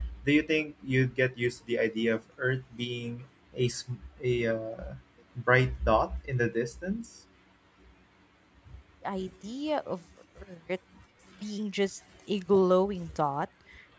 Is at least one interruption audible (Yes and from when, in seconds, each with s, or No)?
No